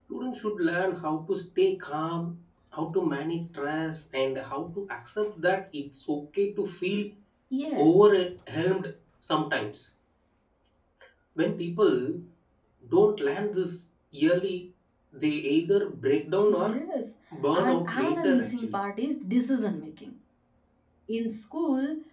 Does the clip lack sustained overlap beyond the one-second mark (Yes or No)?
No